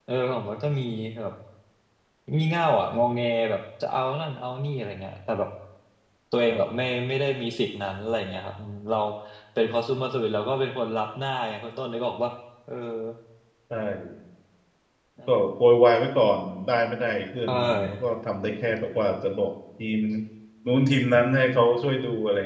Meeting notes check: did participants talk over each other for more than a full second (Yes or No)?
No